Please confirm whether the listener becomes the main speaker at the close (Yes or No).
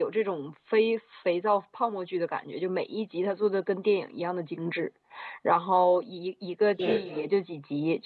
No